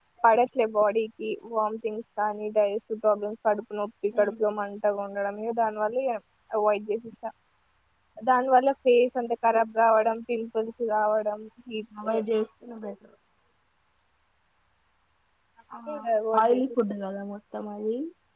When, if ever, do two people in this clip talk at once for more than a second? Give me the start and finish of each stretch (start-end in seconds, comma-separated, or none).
none